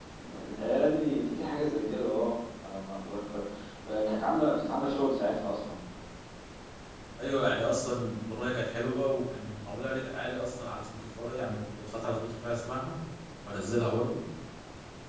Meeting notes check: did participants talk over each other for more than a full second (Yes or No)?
No